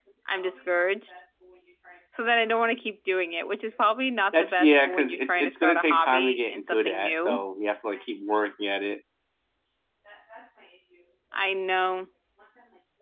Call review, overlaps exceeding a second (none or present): present